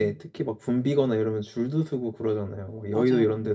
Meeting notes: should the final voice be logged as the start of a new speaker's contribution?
Yes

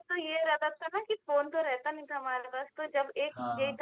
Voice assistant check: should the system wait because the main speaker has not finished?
Yes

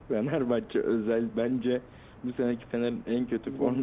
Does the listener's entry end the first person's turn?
Yes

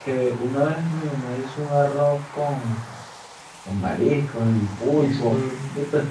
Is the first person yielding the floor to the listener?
No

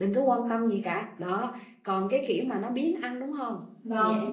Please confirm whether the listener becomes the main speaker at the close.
Yes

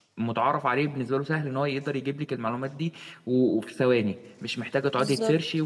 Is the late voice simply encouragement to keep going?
Yes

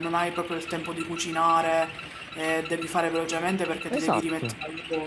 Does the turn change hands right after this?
No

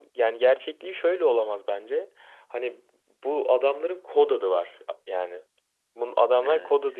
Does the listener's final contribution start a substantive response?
No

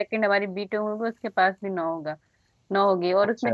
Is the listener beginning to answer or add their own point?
No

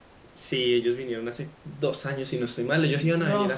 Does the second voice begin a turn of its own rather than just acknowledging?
No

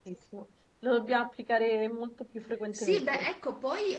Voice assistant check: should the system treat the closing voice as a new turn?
Yes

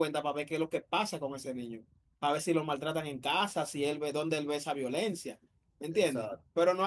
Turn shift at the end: No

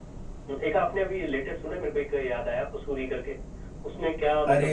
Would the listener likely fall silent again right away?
No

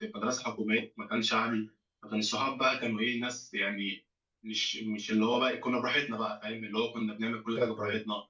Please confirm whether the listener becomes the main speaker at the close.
No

